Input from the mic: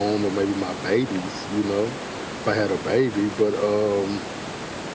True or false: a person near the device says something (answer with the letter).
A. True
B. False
B